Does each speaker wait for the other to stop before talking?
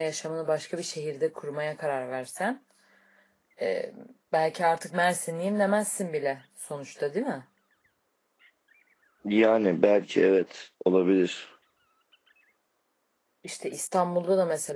Yes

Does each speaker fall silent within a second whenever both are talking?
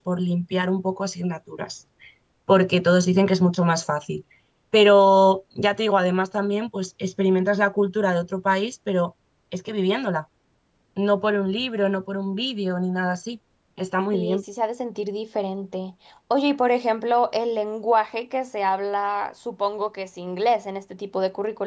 Yes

